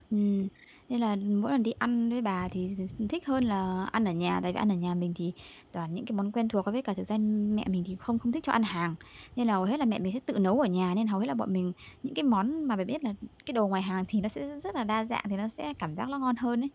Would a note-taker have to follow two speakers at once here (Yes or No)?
No